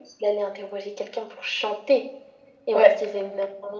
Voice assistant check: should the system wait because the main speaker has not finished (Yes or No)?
Yes